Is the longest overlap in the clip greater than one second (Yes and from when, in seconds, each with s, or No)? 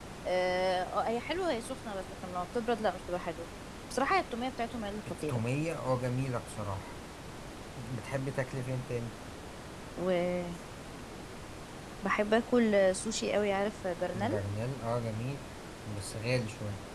No